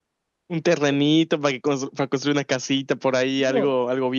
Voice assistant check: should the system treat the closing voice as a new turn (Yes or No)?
Yes